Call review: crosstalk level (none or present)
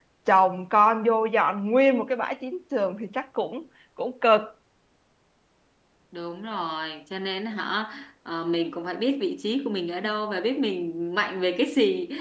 none